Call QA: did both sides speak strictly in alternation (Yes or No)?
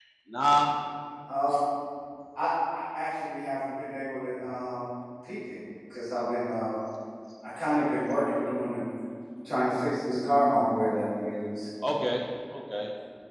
Yes